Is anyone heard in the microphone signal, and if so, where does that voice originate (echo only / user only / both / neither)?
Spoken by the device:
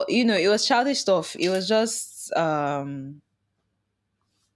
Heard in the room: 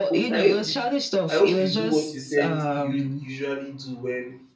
both